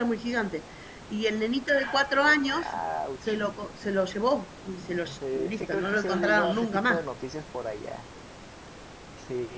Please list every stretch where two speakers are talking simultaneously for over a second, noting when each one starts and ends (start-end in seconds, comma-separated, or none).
5.3-7.0